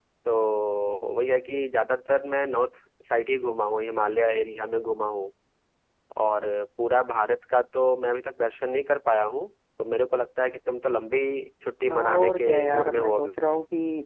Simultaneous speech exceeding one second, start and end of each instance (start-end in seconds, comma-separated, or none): 11.9-13.3